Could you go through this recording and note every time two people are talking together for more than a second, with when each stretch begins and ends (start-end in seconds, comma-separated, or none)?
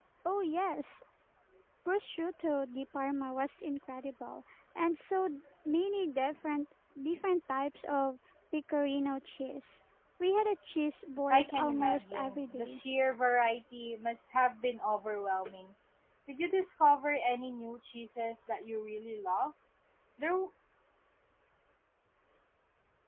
11.3-12.8